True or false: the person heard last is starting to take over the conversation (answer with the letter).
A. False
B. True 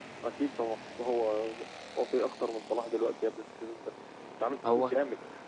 A